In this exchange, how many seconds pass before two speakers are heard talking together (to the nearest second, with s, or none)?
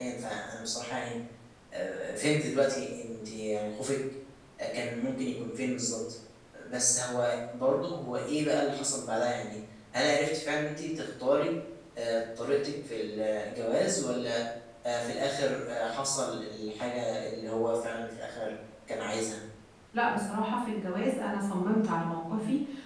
none